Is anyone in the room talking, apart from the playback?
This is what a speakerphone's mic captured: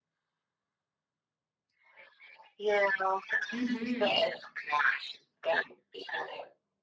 Yes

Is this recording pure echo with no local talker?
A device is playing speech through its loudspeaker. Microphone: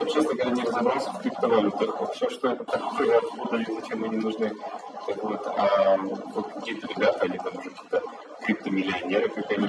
Yes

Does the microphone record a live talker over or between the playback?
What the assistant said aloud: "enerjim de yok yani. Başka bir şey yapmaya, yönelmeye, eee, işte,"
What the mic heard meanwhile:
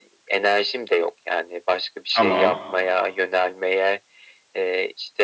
Yes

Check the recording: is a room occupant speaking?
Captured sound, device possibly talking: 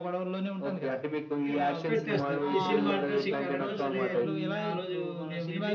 Yes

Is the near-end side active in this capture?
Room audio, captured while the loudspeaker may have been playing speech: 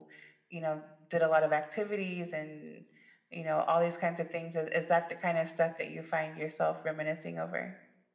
No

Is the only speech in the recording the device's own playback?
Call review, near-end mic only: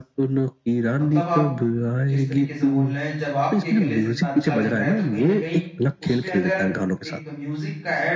No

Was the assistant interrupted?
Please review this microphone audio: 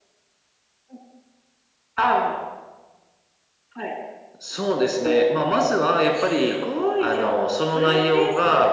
No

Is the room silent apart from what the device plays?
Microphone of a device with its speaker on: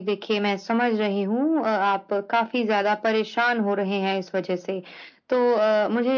Yes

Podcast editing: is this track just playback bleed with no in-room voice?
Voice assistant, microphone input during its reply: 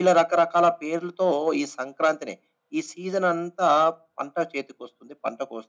Yes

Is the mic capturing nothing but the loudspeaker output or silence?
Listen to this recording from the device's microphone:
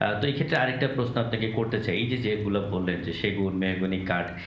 Yes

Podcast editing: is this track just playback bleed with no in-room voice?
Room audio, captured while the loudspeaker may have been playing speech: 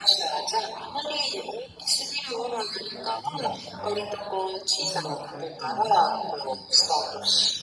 No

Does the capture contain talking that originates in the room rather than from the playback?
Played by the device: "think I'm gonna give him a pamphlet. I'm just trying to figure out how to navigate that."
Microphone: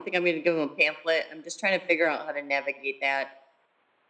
No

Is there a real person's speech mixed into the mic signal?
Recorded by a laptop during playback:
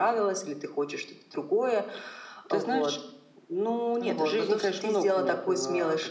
No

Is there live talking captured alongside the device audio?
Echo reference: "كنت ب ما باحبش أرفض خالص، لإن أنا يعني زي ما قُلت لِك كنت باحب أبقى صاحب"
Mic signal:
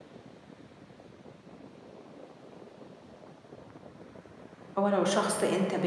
Yes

